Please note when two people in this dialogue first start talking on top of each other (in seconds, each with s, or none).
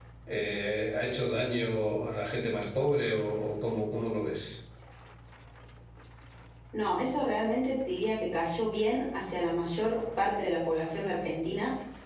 none